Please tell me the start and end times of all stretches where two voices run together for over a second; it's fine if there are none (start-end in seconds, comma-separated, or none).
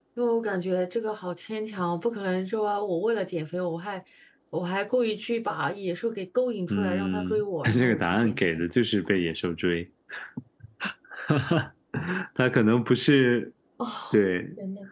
6.7-8.5